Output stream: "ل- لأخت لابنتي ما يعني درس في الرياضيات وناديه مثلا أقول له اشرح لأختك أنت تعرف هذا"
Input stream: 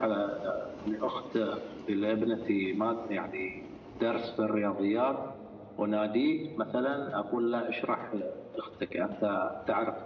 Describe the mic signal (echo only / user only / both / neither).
echo only